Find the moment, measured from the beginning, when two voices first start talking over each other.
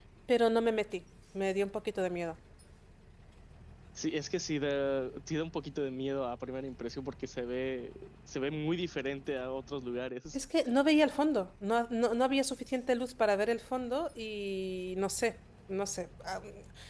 none

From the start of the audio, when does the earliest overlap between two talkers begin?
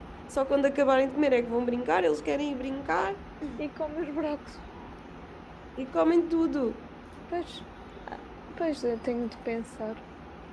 none

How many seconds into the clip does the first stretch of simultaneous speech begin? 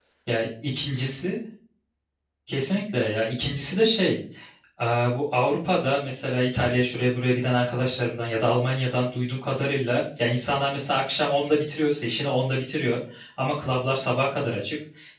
none

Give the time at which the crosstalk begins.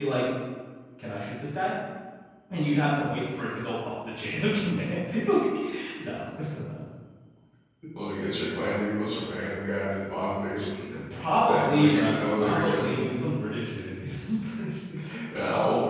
11.5 s

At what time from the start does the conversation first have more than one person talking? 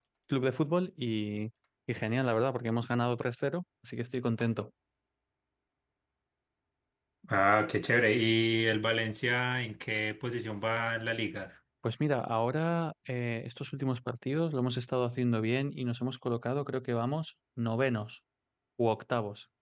none

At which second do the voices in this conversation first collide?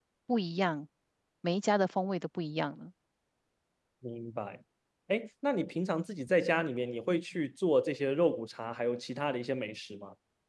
none

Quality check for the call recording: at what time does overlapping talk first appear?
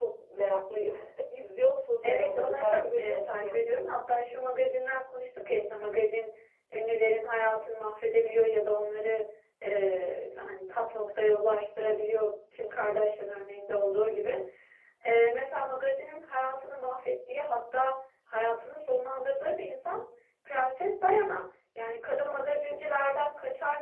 2.0 s

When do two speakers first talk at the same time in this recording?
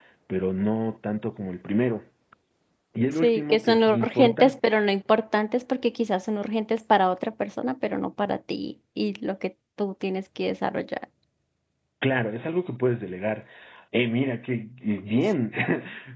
3.2 s

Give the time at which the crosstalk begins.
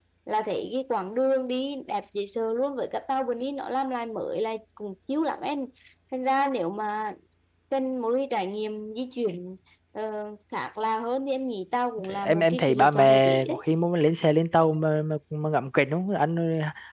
12.0 s

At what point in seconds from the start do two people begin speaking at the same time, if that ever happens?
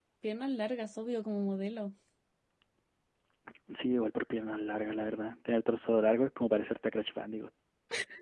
none

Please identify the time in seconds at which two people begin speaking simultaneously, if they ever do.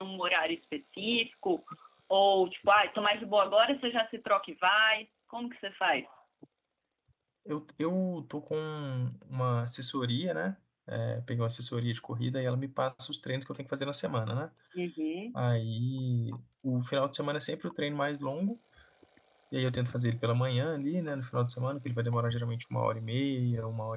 none

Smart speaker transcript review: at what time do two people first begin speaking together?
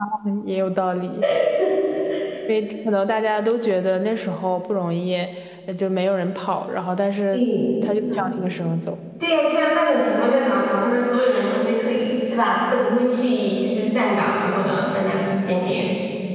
none

